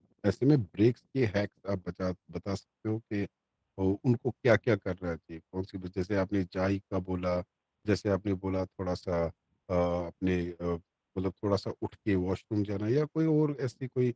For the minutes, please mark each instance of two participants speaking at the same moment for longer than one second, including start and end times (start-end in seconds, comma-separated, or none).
none